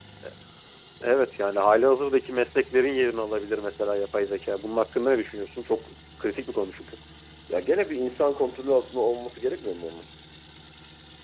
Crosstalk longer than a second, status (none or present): none